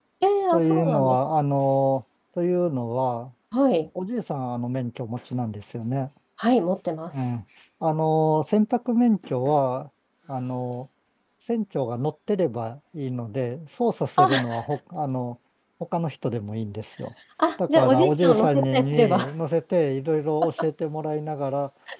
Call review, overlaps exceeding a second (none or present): present